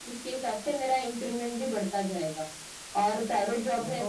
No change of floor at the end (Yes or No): Yes